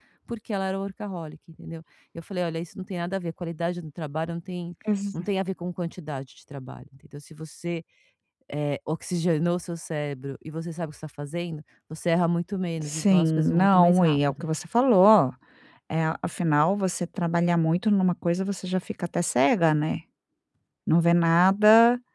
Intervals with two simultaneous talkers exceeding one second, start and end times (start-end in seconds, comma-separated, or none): 12.8-14.5